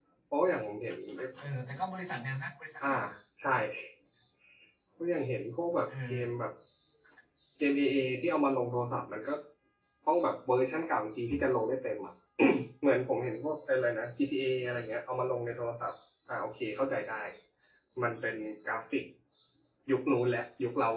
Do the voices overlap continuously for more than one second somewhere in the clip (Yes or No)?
No